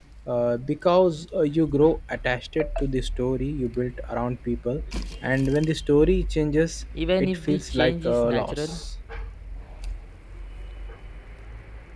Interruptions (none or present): present